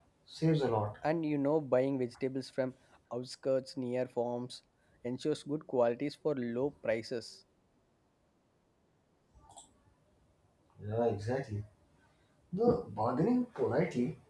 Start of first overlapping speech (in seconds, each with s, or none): none